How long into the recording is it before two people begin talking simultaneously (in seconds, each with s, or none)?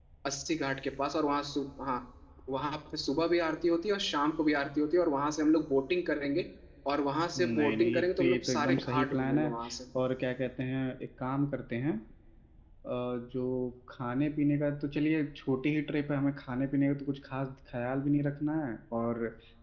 7.4 s